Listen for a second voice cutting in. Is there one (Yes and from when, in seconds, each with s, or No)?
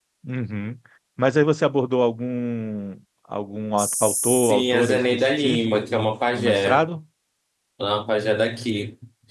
Yes, from 3.8 s